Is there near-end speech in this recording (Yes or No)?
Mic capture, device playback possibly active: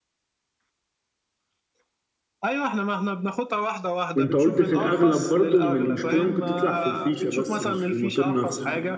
Yes